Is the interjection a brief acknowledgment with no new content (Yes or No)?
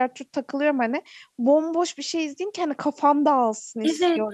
Yes